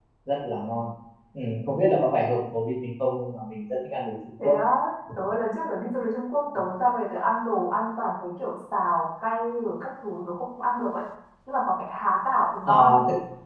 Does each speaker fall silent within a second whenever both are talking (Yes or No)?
Yes